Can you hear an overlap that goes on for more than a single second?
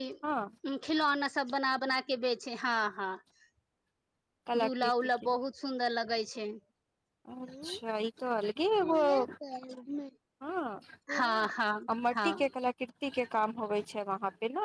No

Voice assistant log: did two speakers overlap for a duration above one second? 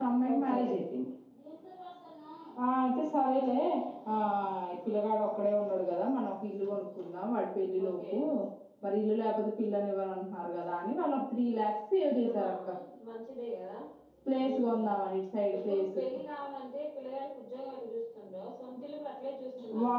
No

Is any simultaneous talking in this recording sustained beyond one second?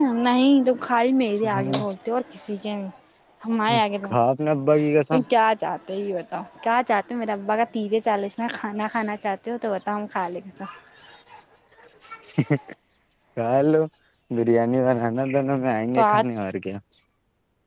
No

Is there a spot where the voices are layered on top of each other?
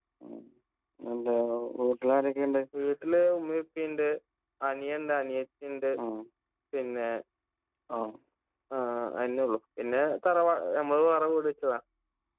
No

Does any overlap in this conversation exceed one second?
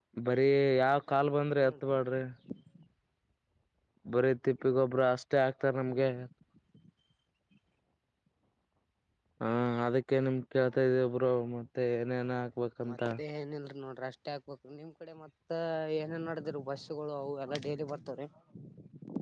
No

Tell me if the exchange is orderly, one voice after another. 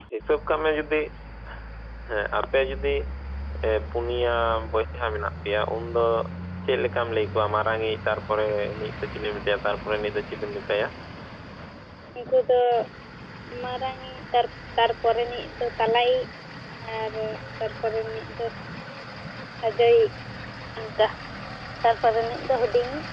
Yes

